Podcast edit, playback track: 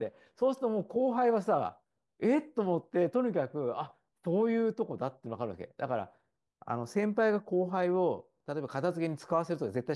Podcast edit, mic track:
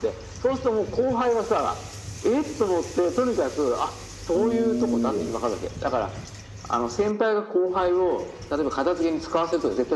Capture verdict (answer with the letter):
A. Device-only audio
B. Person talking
B